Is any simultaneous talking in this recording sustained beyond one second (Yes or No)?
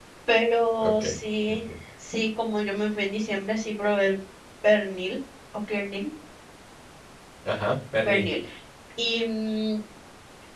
No